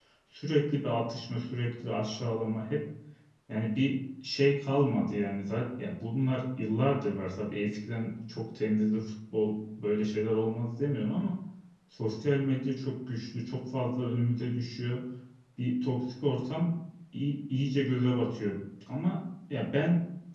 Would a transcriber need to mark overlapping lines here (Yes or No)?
No